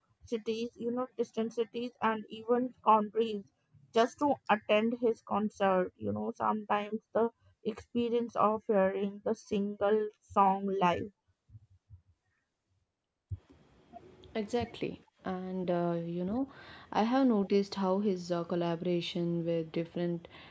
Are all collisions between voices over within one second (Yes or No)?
Yes